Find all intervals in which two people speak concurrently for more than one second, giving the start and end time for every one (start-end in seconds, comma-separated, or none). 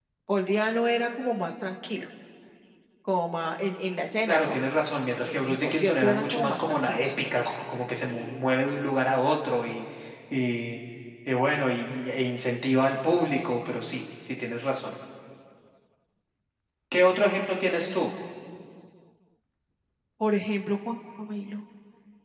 5.2-7.1